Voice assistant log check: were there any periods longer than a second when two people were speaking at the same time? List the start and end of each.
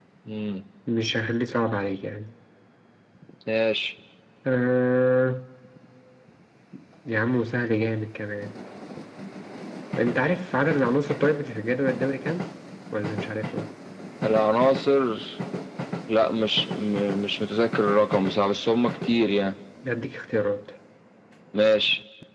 none

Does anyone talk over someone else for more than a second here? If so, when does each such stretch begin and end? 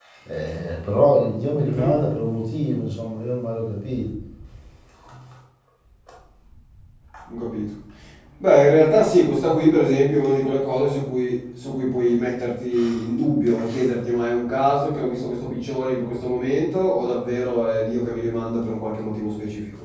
none

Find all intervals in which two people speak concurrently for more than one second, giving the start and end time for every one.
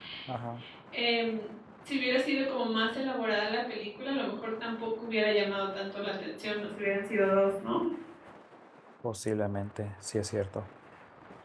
none

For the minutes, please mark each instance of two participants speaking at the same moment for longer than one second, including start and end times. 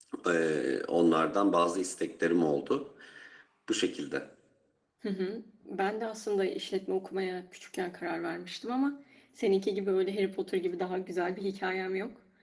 none

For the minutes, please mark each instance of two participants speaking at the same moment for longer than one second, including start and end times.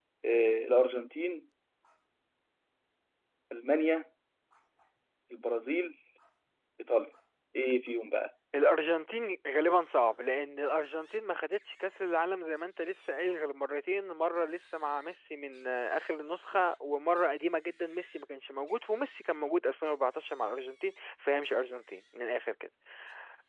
none

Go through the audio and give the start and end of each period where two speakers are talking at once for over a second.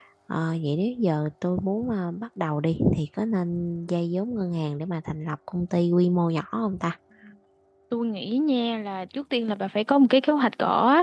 none

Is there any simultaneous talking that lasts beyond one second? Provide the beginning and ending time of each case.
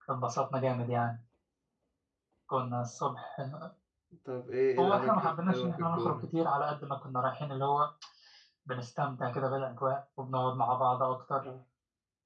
4.8-6.3

